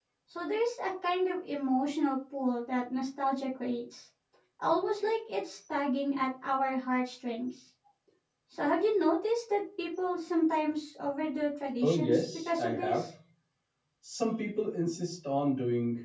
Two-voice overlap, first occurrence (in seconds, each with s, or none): 11.8 s